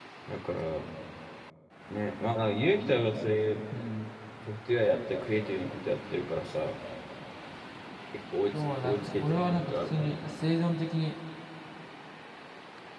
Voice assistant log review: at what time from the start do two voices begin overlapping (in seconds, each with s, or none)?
8.5 s